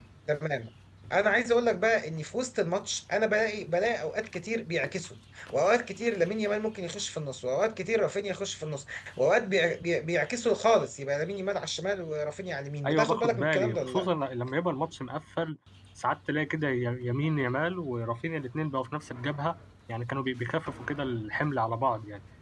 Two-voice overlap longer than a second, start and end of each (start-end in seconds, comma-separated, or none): 12.9-14.1